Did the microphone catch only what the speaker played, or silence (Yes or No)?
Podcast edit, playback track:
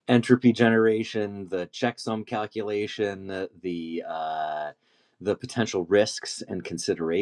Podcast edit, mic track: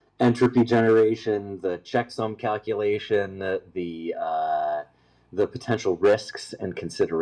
Yes